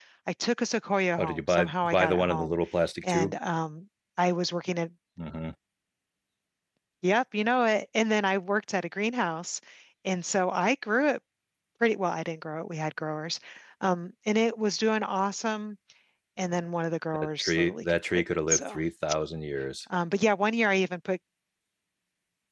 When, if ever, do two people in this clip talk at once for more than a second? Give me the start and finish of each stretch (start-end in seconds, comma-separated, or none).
1.2-2.6, 17.1-18.8